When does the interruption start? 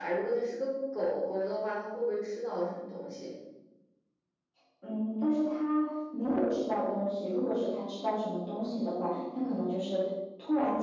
none

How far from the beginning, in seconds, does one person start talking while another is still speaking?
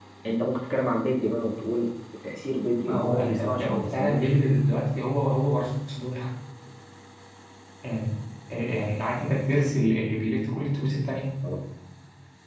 2.8 s

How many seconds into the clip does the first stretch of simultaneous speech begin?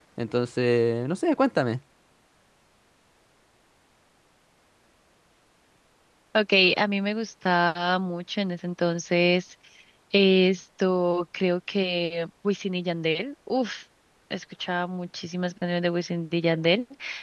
none

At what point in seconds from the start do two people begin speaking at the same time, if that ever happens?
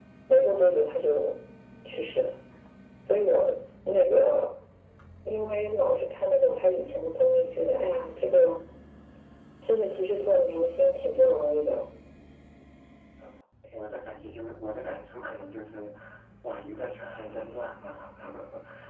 none

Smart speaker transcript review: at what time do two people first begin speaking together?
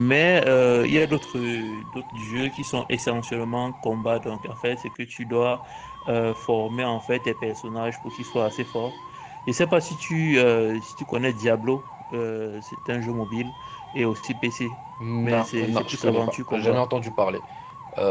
15.2 s

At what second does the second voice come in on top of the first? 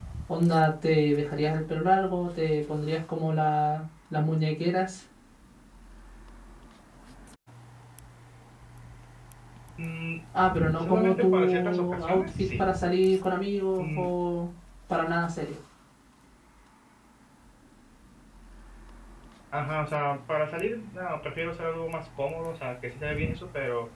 10.8 s

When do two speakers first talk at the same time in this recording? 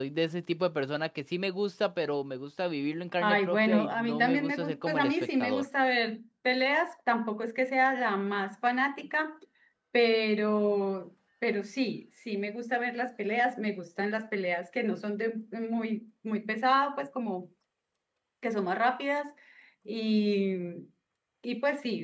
3.2 s

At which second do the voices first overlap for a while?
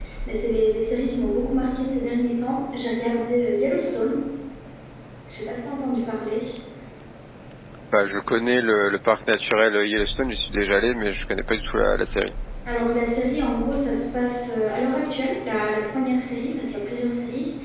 none

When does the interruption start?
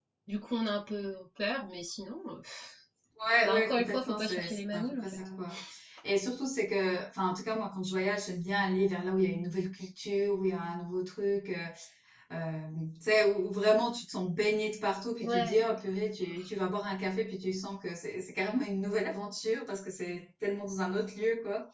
3.4 s

